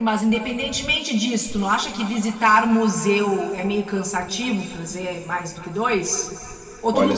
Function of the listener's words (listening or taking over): taking over